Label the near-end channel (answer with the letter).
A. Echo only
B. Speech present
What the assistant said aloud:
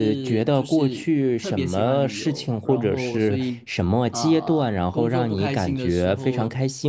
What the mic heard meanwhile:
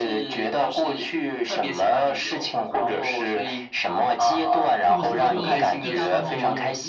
B